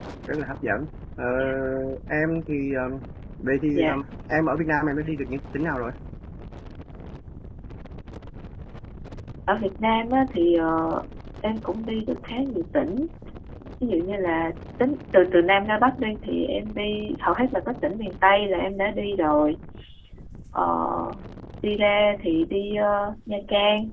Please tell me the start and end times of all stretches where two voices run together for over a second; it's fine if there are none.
none

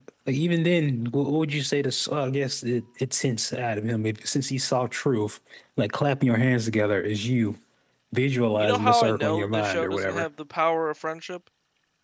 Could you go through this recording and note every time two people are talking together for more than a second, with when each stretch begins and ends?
8.6-10.3

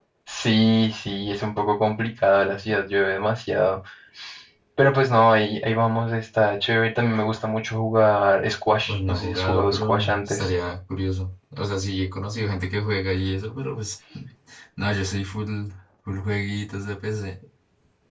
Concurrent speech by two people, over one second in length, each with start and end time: 8.9-10.5

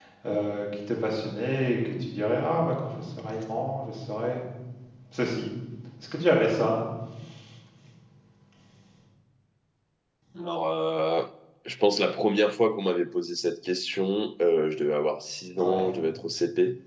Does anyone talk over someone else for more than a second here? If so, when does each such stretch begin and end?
none

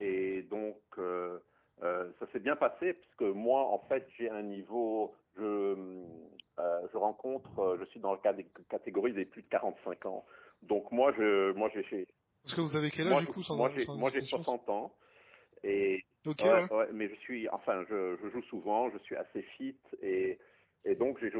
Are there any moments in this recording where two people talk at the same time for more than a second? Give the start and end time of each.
13.0-14.4

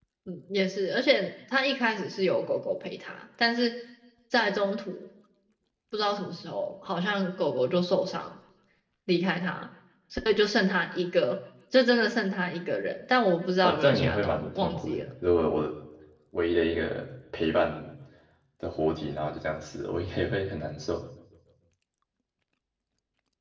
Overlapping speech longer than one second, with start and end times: 13.6-15.1

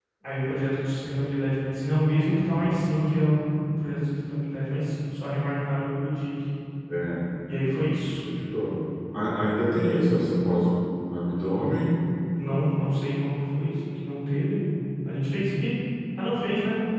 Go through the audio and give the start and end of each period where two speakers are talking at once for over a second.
none

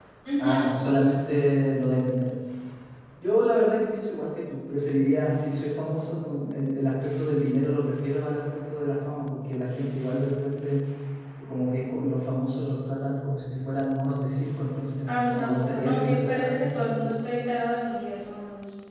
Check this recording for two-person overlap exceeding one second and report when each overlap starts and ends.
15.1-17.1

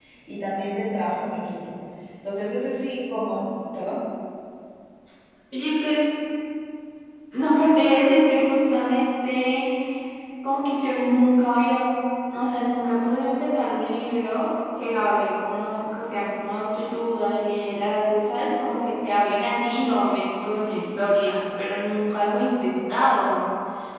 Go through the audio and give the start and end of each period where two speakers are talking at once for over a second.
none

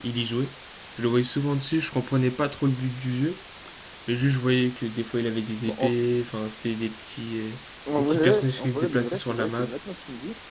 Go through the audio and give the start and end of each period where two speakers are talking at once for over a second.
8.0-9.7

